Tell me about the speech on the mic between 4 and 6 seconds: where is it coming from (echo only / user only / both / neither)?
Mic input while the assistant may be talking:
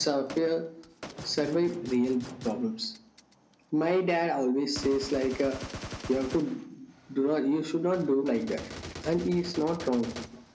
echo only